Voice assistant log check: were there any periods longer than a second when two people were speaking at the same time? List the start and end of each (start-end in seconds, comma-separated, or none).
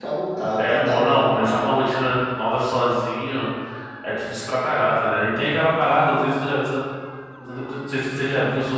0.6-1.8